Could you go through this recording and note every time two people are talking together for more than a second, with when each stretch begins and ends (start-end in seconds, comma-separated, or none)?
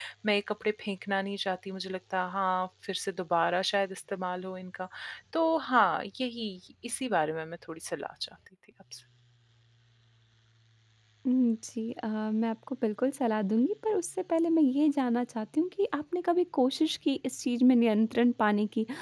none